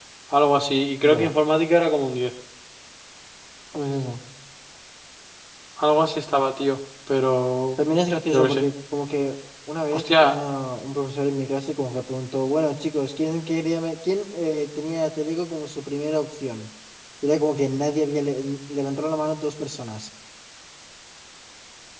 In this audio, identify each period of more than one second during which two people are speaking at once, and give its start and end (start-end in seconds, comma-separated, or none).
none